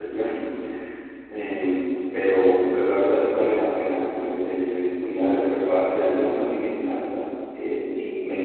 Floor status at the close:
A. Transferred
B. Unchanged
B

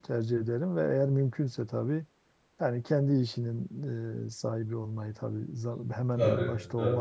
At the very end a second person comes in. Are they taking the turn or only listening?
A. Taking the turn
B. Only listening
B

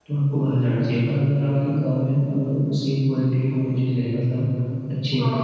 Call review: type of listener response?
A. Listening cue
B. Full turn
A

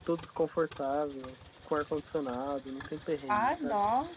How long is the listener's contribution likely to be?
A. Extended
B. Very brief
A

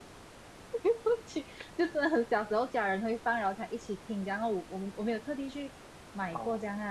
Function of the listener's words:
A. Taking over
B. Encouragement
B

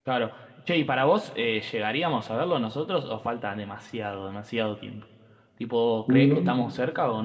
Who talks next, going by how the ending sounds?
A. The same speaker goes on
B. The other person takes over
A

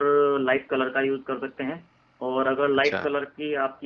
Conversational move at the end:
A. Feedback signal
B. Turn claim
A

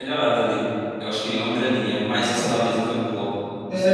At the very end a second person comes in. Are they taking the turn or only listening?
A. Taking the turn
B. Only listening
A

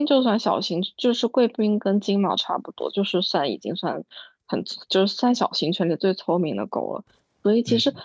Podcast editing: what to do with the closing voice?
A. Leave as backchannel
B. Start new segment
A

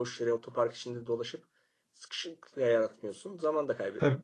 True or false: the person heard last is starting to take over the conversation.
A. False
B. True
B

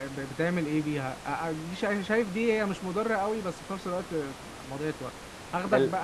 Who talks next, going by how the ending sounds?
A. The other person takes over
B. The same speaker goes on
B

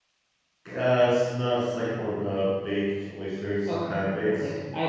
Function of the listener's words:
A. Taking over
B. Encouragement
A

